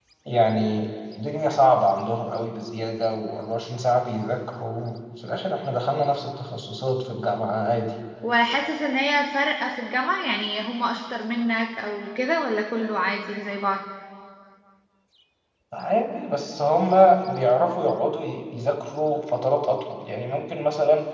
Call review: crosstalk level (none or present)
none